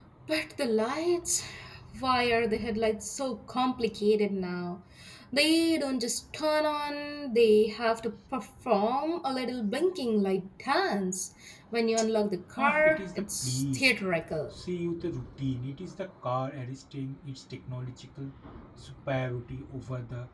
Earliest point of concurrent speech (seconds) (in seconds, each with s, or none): 12.6 s